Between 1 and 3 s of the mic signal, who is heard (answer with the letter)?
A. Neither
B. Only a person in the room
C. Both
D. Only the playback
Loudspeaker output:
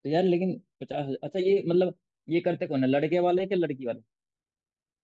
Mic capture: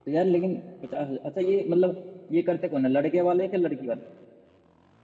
D